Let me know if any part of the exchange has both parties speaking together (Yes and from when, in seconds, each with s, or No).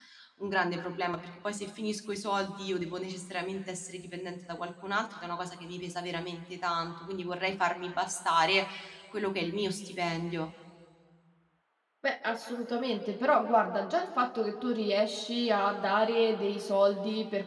No